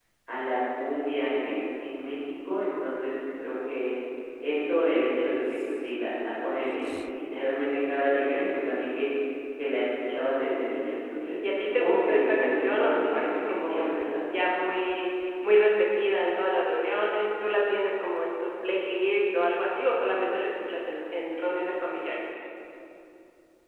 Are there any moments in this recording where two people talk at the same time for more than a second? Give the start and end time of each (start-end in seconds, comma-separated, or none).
11.5-13.9